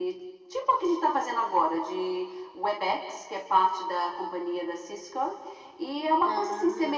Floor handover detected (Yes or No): No